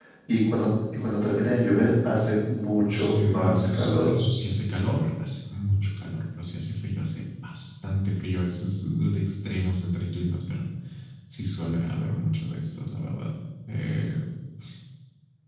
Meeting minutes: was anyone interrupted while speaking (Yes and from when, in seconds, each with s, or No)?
Yes, from 2.8 s